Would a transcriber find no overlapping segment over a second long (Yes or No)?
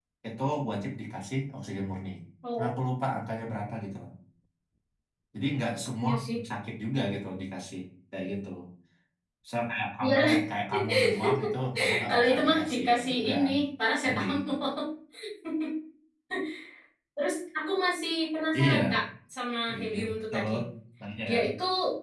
No